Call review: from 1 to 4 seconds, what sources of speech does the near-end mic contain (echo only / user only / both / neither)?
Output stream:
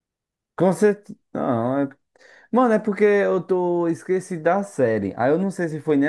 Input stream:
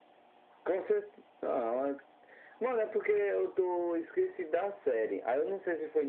echo only